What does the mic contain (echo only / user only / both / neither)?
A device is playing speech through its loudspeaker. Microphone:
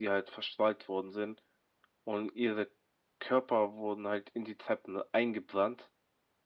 echo only